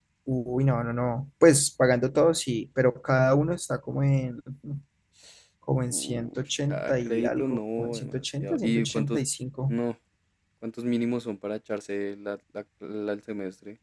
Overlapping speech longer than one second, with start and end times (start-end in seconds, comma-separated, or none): 5.9-9.2